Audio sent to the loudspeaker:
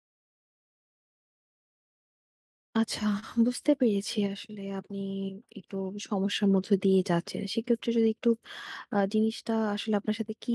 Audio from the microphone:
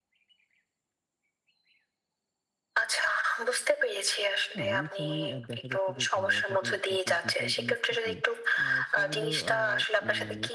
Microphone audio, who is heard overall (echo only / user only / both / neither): both